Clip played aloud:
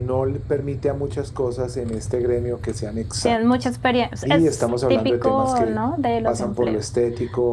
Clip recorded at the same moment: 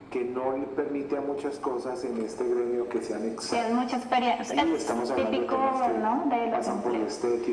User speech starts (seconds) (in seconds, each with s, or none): none